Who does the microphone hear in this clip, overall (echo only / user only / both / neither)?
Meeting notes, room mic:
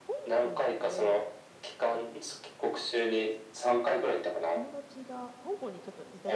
both